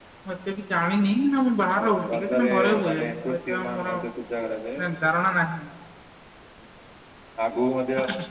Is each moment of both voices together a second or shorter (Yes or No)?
No